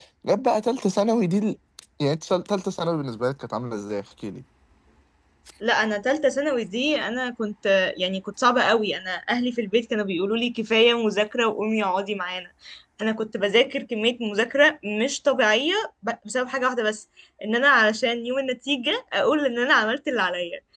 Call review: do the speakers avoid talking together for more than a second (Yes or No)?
Yes